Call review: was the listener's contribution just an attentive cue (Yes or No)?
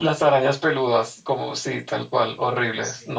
No